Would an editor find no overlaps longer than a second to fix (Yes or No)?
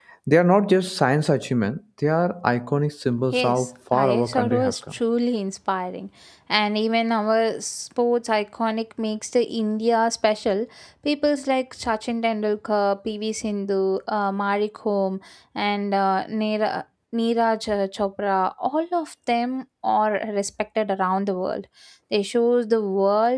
No